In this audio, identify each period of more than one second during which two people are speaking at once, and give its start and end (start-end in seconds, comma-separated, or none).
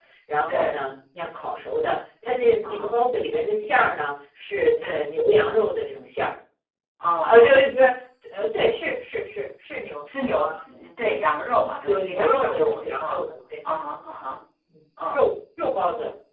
11.9-13.1